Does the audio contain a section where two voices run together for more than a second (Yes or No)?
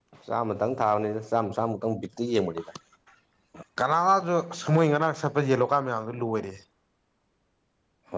No